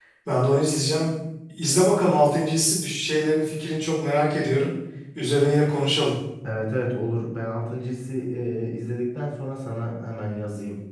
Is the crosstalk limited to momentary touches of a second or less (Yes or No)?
Yes